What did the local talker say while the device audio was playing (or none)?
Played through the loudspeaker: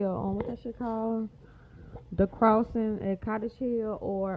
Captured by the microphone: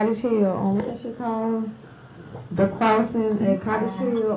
You fine.